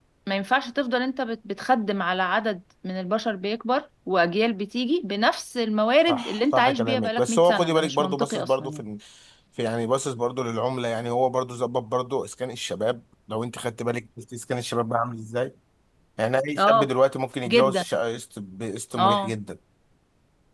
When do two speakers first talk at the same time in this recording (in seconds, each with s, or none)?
6.1 s